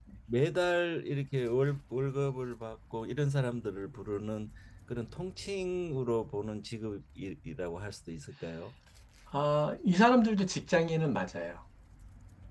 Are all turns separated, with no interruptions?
Yes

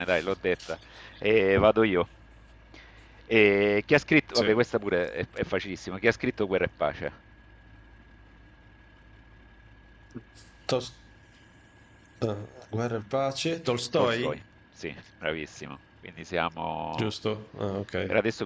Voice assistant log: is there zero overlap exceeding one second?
Yes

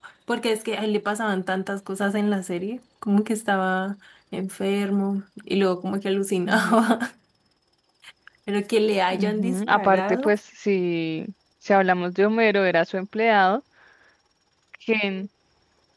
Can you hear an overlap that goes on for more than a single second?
Yes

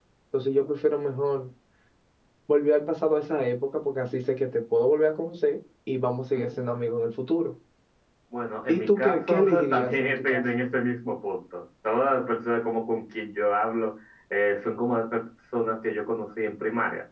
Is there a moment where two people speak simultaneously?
Yes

